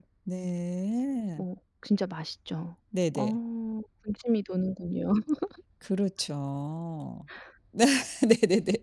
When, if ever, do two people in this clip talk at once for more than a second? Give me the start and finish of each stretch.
none

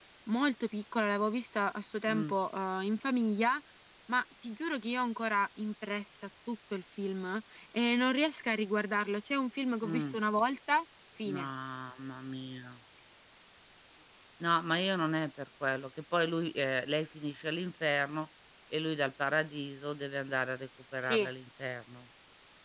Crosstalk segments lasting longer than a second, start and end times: none

